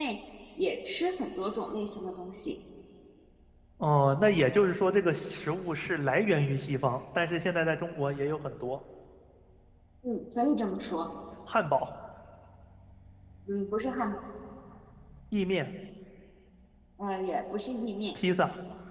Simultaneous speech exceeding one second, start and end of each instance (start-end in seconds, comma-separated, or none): none